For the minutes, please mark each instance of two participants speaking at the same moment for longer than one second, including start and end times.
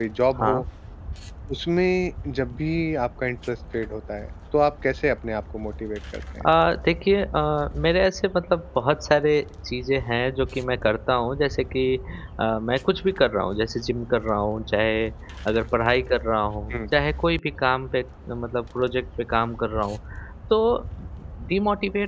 none

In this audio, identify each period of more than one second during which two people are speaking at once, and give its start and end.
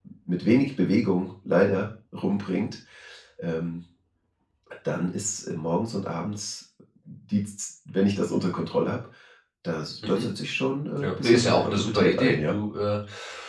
11.0-12.6

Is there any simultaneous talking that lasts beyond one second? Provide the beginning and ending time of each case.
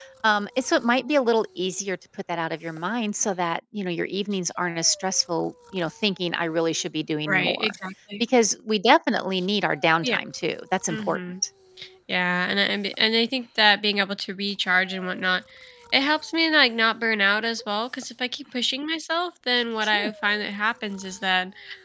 none

